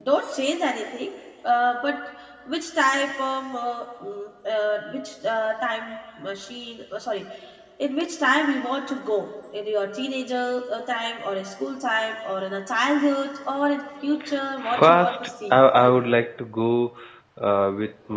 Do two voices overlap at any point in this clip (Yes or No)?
Yes